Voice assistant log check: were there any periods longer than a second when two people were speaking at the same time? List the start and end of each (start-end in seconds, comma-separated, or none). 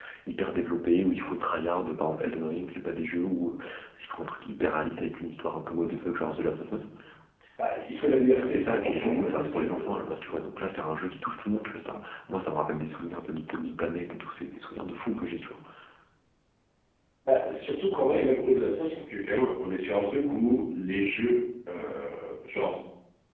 8.4-9.9